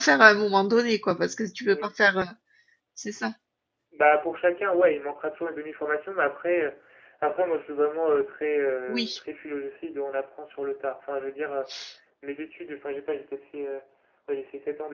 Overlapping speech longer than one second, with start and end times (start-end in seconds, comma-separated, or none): none